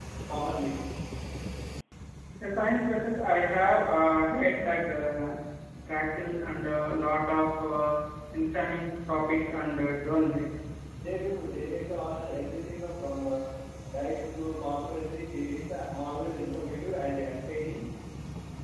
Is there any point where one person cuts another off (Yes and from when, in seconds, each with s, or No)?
No